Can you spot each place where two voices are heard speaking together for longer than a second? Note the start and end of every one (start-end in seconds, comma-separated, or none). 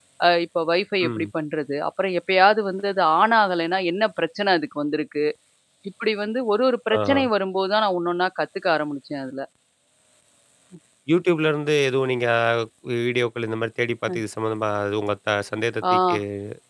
none